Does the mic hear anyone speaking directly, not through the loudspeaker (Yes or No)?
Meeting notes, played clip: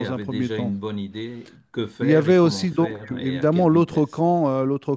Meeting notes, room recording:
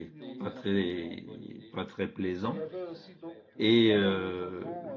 Yes